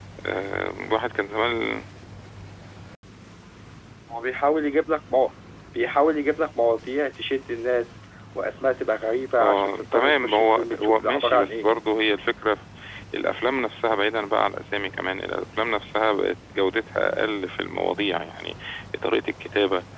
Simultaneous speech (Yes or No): Yes